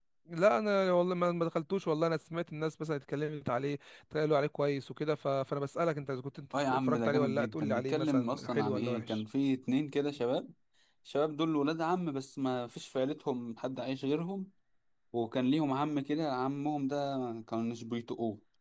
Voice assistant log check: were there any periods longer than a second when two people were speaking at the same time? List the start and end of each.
6.7-9.2

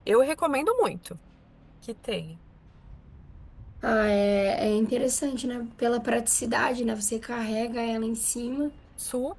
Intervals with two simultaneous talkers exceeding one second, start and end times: none

